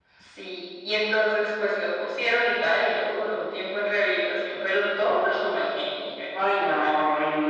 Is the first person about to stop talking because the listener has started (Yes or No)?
Yes